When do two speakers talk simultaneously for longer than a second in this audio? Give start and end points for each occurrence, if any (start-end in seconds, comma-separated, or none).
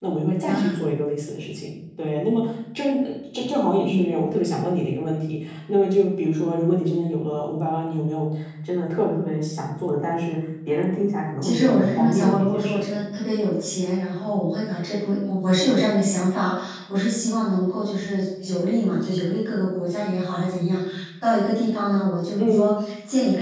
11.4-13.0